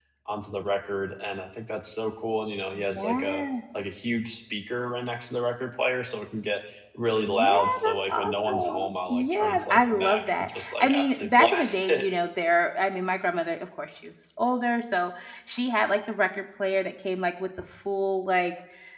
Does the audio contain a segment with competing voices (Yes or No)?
Yes